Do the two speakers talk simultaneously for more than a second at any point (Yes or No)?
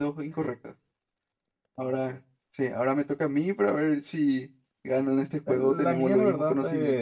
Yes